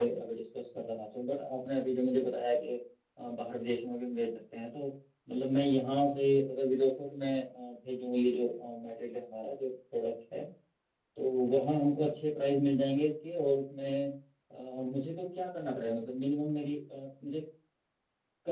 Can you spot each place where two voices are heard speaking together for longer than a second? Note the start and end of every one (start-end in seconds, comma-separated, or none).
none